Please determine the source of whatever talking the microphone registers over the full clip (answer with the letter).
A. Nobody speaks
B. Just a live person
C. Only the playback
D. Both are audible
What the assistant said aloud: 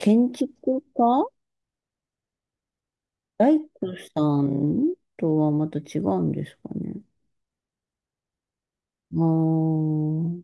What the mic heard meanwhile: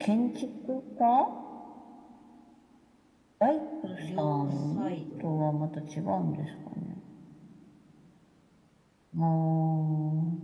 D